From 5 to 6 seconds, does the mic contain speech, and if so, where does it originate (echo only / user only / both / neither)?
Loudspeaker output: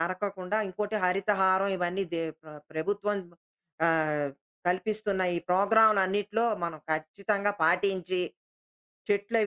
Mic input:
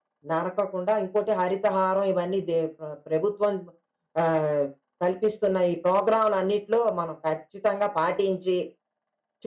echo only